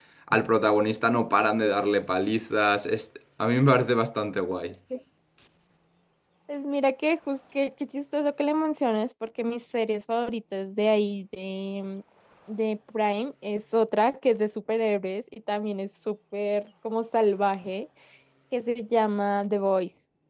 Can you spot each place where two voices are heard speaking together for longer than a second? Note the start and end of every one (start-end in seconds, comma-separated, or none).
none